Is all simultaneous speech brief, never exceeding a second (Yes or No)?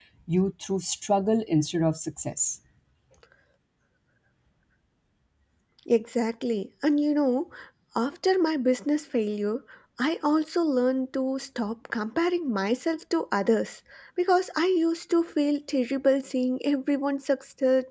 Yes